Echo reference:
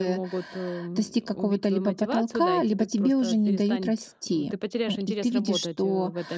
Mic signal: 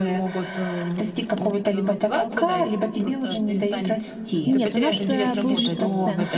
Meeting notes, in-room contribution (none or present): present